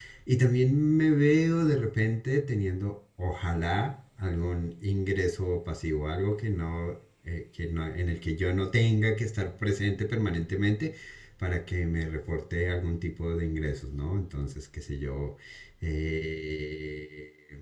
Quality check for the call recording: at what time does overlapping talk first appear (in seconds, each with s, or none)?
none